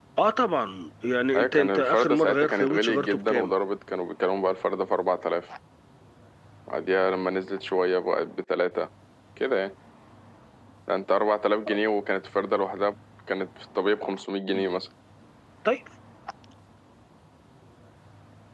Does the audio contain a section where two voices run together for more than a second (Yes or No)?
Yes